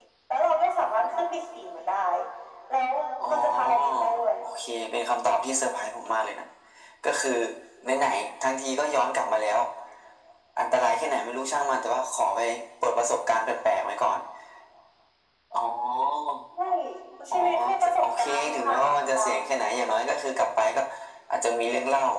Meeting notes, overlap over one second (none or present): present